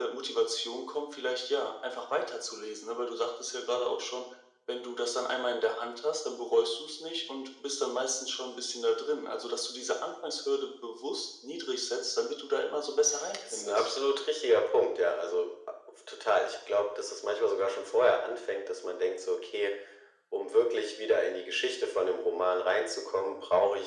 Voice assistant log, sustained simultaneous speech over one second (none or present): none